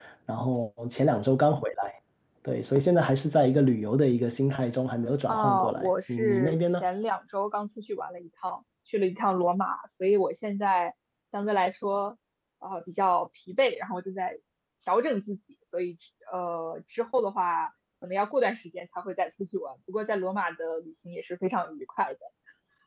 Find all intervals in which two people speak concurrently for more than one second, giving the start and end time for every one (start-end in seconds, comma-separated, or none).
5.3-6.8